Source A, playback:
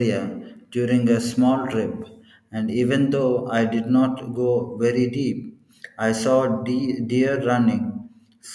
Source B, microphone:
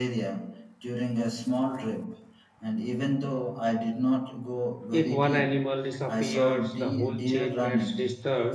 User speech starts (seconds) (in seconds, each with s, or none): 4.9 s